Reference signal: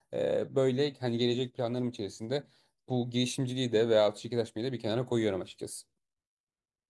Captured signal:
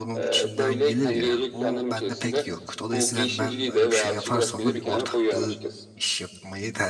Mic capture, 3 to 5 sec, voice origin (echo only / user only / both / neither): both